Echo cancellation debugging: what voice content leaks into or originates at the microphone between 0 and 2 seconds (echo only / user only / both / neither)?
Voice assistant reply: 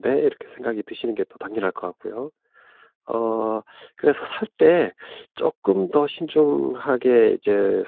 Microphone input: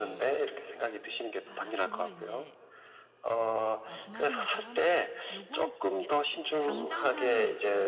both